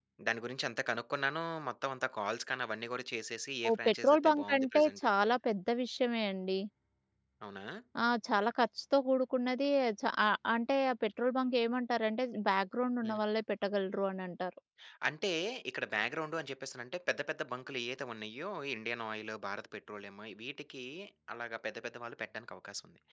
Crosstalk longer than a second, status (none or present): present